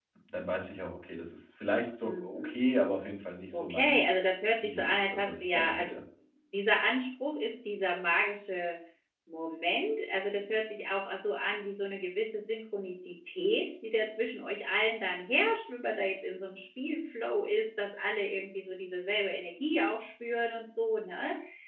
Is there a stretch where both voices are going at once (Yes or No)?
Yes